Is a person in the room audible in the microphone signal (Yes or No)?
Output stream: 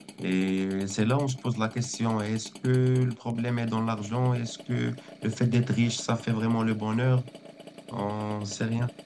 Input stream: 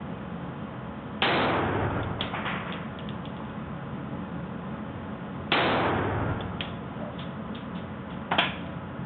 No